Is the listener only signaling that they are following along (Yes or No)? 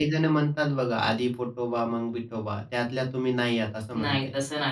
No